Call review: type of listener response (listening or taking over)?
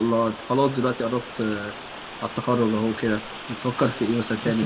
taking over